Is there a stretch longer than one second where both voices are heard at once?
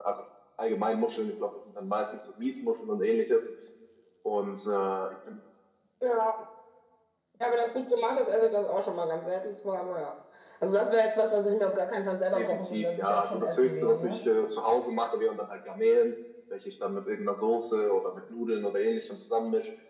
Yes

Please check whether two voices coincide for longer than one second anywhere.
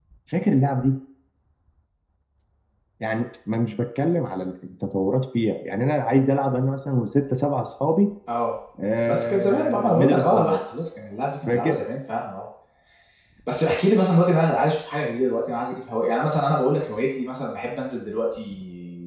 Yes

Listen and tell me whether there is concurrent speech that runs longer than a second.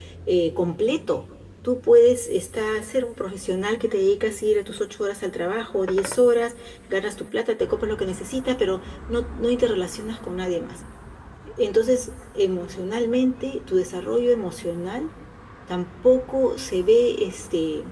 No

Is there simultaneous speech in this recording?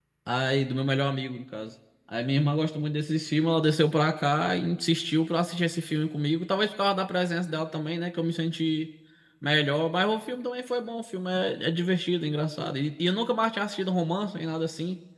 No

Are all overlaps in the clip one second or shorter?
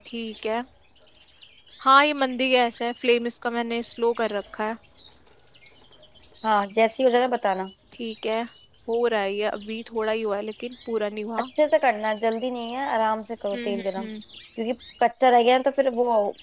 Yes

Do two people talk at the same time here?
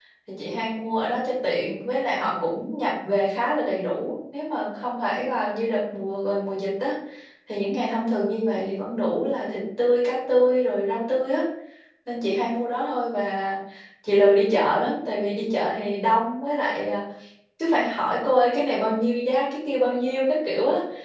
No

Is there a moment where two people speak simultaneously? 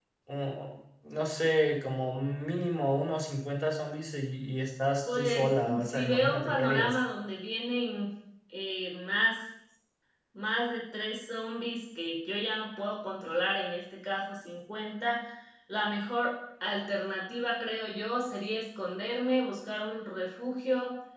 Yes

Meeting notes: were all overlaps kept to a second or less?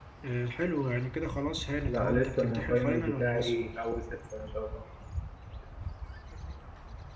No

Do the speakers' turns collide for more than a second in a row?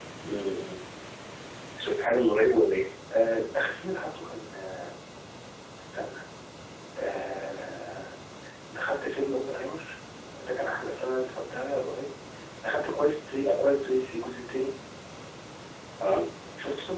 No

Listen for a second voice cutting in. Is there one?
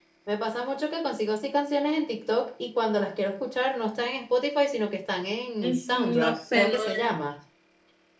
Yes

